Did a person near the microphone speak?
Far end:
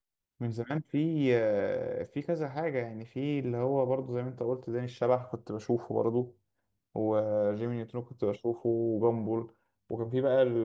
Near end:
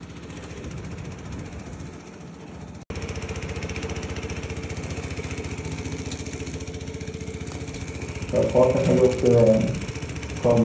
Yes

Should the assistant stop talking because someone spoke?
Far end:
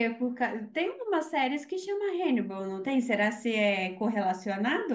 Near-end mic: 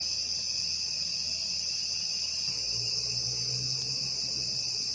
No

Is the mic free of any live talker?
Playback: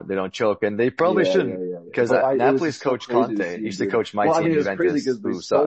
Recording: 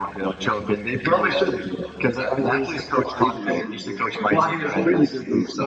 Yes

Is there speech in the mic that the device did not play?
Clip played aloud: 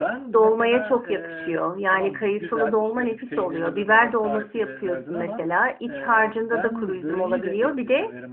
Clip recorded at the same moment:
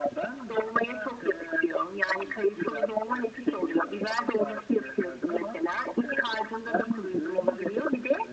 No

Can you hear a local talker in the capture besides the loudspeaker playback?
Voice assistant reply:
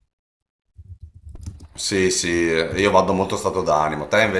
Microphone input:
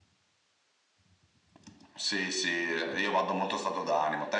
No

